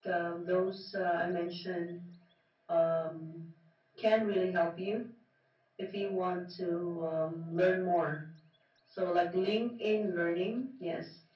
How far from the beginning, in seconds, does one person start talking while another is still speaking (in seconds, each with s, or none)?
none